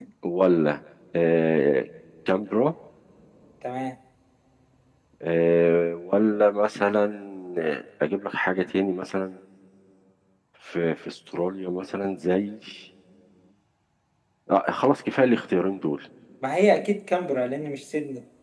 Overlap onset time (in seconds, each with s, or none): none